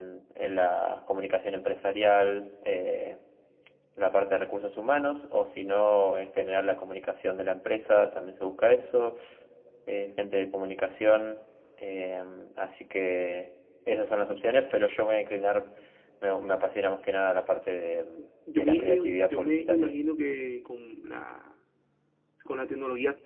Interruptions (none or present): present